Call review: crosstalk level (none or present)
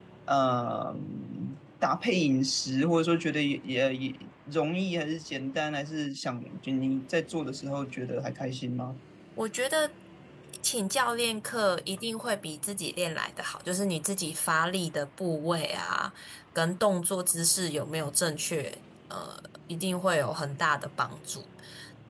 none